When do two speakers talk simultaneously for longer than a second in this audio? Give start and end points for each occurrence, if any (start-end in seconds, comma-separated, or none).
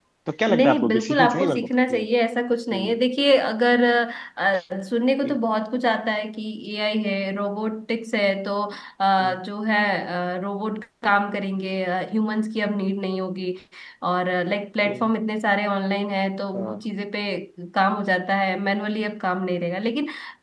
0.5-2.0